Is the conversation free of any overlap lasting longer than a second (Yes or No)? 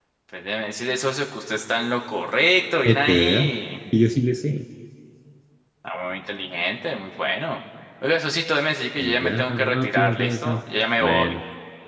No